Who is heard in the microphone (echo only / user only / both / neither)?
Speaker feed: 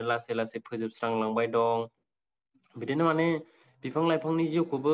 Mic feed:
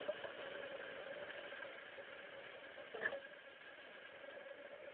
neither